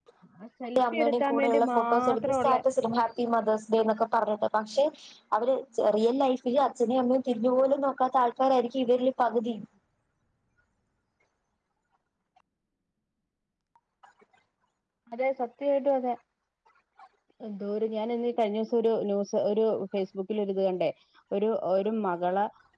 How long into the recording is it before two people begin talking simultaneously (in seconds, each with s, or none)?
0.8 s